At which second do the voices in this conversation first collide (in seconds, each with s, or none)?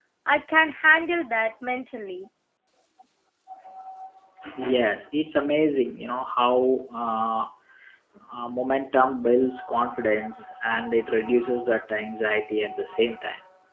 none